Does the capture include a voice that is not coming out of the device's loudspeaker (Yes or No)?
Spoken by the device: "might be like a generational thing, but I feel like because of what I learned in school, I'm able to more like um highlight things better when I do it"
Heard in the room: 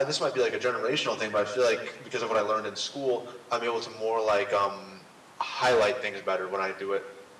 No